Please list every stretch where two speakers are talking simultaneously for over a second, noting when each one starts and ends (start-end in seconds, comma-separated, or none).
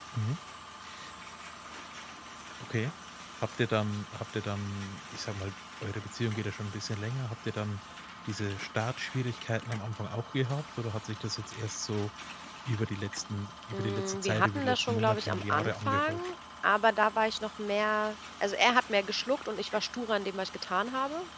13.7-16.4